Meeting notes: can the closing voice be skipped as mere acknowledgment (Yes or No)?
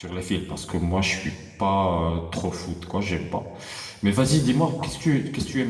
Yes